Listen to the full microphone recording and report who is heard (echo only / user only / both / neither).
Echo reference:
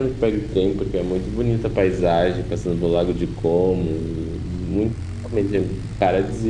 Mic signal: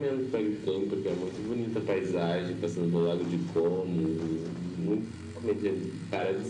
echo only